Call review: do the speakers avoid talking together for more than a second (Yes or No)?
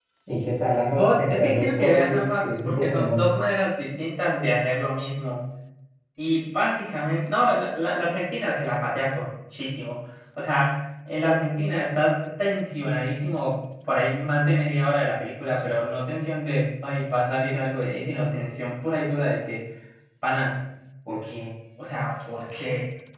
No